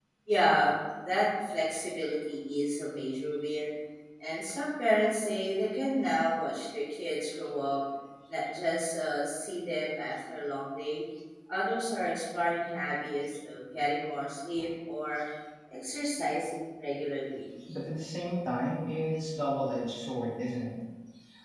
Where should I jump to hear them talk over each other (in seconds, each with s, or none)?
none